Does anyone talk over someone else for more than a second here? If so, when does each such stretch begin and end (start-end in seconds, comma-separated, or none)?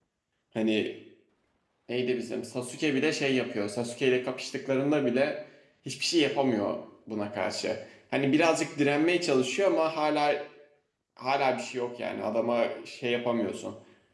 none